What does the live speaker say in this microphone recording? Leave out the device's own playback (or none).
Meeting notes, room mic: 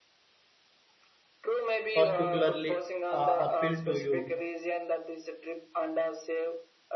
particularly uh, appeal to you?